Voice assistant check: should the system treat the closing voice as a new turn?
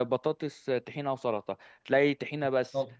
No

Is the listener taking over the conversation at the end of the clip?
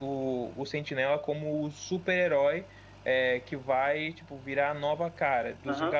No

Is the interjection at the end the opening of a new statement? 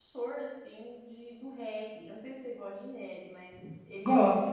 No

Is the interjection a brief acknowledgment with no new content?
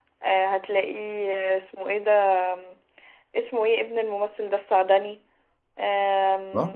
Yes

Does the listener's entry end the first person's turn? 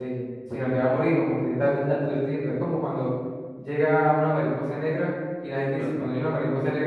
No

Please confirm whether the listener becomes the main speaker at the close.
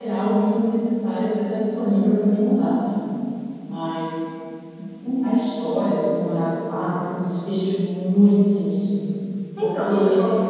Yes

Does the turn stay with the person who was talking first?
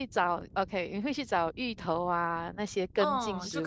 No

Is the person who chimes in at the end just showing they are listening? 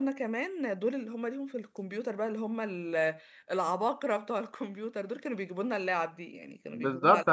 No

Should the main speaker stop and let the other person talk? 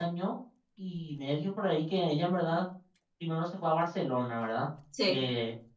No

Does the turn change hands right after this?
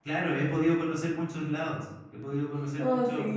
No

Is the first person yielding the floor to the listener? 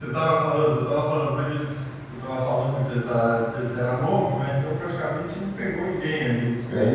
Yes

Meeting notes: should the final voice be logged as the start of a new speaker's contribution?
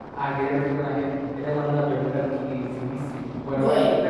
No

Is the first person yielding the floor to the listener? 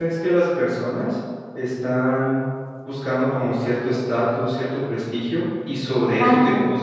No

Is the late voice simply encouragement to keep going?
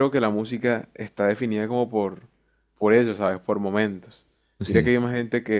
Yes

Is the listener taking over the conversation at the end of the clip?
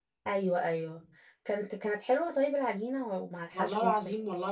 Yes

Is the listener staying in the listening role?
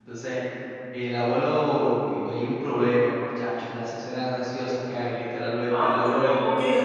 No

